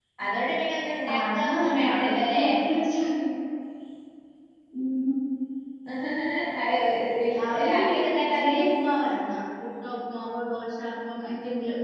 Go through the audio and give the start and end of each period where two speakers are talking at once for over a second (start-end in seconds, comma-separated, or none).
1.1-2.4, 7.3-8.6